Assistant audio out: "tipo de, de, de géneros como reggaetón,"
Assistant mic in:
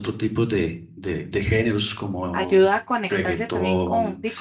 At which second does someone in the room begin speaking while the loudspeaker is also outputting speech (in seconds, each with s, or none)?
2.3 s